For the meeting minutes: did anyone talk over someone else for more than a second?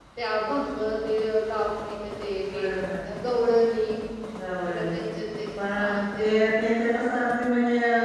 No

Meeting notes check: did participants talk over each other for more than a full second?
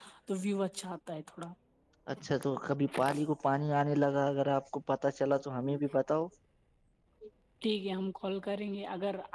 No

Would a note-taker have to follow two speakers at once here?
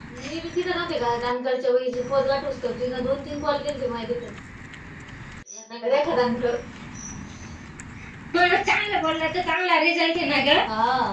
No

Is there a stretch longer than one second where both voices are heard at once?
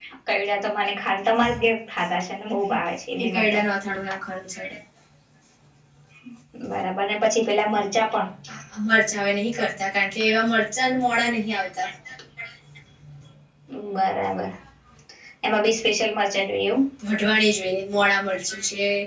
No

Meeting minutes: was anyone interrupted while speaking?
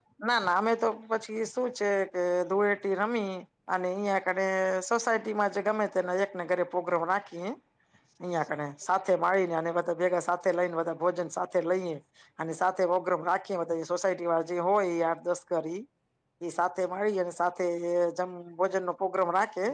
No

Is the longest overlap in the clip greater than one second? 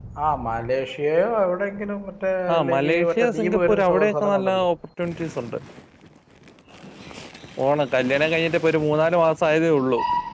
Yes, from 2.5 s

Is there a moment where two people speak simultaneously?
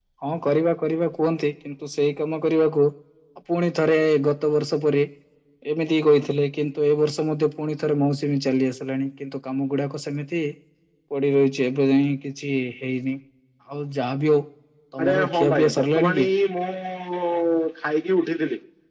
Yes, from 15.0 s

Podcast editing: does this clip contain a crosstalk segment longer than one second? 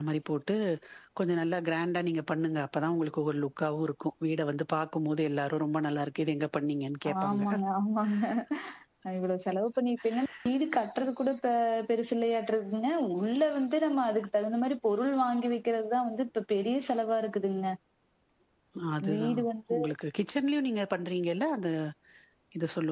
No

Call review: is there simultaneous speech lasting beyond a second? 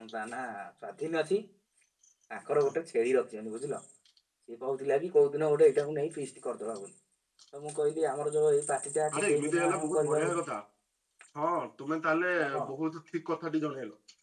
Yes, from 9.2 s

